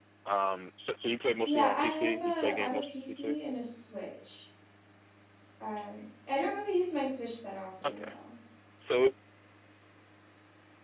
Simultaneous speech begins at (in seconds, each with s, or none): 1.4 s